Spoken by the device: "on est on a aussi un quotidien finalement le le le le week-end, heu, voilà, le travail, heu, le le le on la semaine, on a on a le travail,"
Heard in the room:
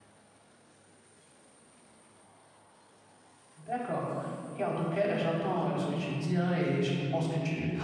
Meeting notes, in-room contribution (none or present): present